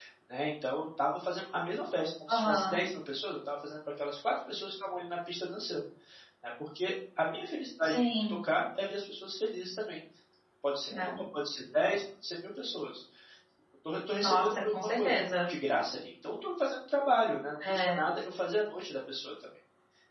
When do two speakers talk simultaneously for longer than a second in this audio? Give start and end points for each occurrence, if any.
14.2-15.5

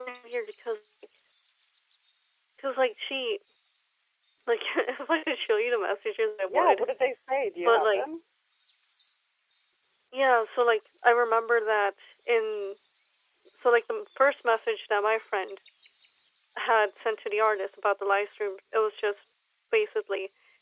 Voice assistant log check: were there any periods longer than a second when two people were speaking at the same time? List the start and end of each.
none

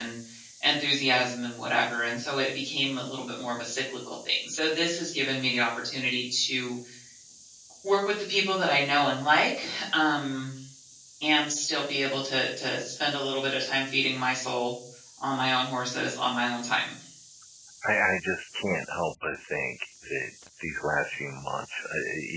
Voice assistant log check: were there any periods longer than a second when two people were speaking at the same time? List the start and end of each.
none

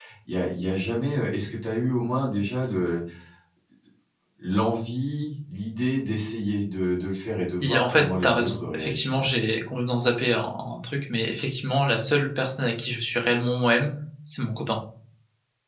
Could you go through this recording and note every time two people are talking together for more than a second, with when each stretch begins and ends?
7.6-9.3

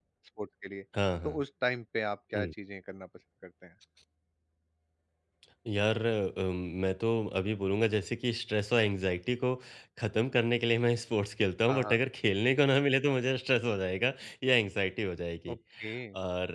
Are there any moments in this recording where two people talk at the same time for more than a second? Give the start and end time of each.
none

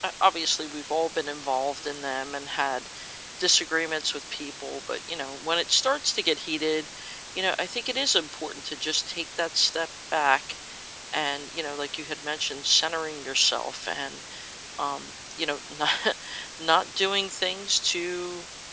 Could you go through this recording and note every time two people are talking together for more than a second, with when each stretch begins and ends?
none

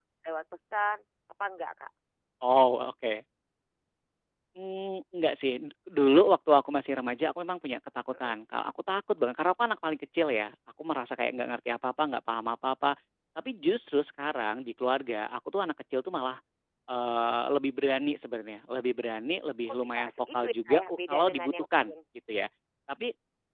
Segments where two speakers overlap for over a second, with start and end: 19.7-21.9

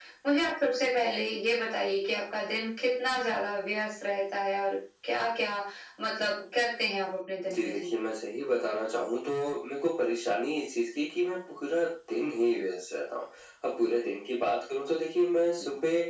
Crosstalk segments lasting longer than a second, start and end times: none

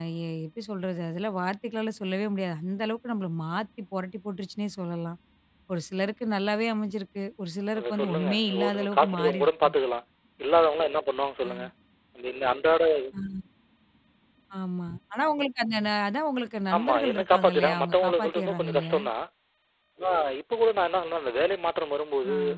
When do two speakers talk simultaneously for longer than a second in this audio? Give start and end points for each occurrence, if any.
7.8-9.7, 16.8-19.0

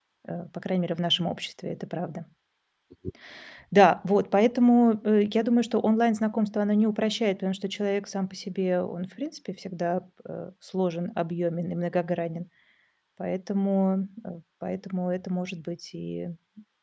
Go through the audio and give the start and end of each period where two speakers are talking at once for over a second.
none

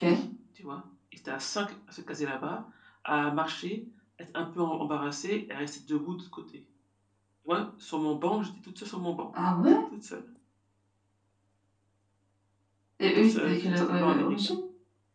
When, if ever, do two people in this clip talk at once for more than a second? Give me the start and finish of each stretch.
13.2-14.5

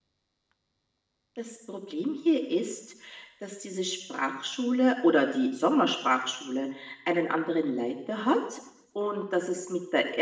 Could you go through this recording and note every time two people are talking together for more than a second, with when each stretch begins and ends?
none

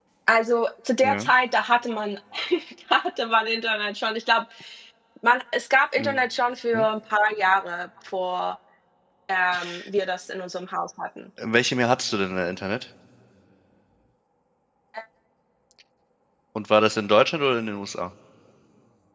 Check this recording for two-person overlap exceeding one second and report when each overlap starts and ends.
none

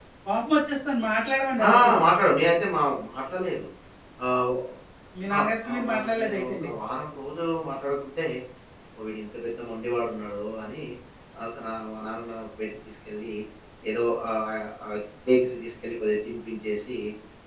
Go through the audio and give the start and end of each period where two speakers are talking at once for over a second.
5.4-6.7

